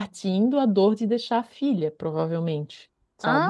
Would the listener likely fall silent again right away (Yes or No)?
No